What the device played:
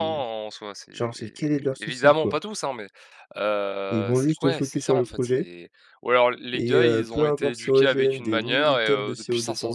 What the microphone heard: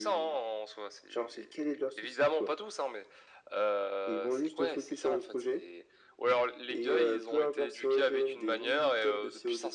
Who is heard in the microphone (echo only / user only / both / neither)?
echo only